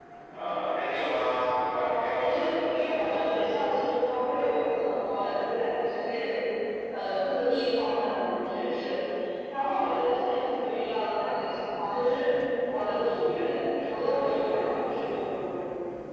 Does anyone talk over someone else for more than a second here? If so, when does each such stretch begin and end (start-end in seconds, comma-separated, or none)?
1.7-3.1